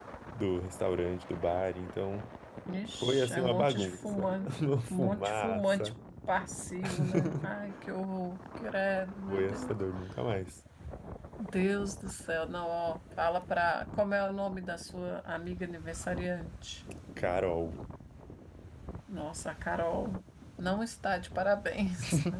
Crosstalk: present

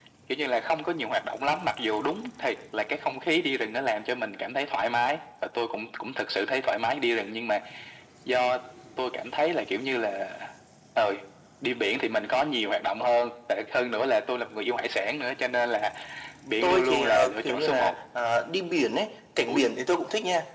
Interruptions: present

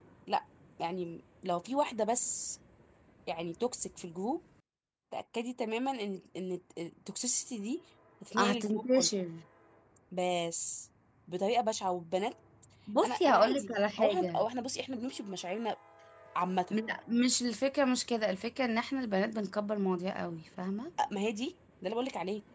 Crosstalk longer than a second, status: present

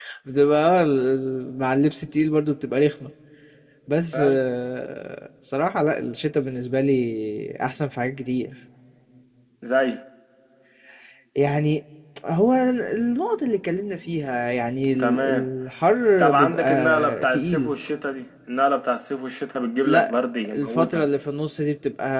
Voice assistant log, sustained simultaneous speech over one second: present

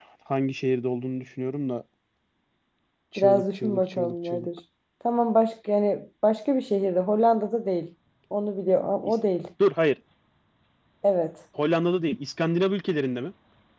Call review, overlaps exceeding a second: present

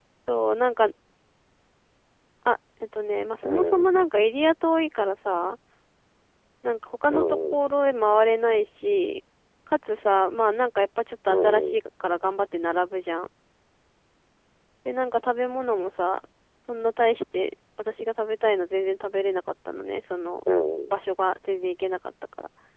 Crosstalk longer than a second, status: none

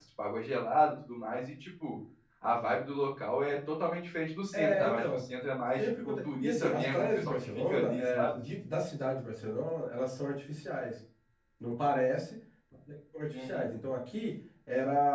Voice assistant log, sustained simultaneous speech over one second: present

